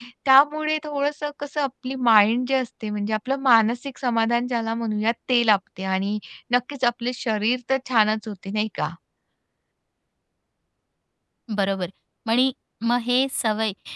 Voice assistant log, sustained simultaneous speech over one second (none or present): none